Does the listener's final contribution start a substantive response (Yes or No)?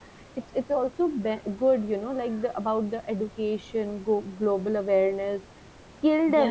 No